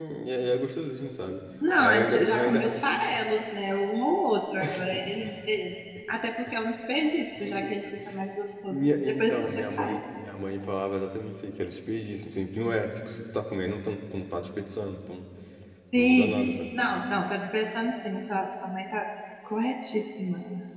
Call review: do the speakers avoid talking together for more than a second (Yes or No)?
No